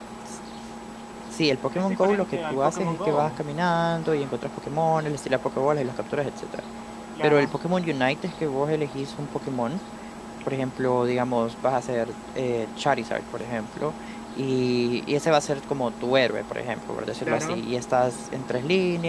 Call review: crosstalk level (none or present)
present